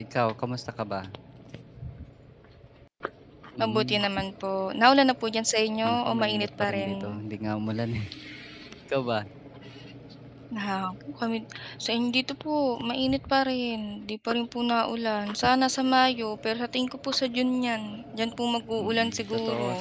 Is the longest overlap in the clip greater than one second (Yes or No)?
Yes